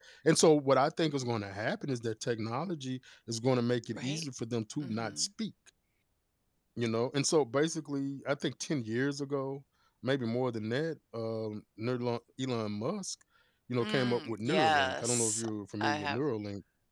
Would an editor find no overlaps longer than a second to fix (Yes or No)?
No